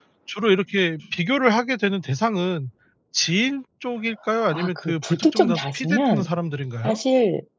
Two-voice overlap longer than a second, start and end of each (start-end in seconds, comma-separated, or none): 4.5-6.3